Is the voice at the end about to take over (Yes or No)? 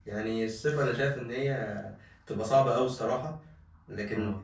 No